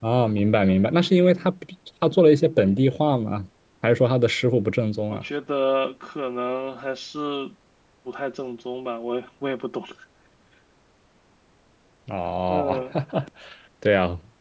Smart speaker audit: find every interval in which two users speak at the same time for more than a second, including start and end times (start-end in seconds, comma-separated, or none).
none